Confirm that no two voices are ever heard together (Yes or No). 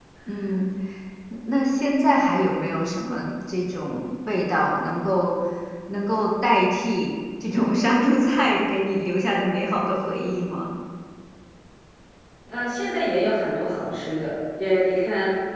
Yes